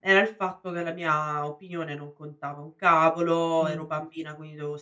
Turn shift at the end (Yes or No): No